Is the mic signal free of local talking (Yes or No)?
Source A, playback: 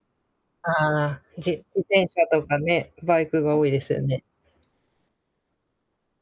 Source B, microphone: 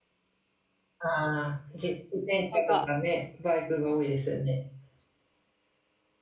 No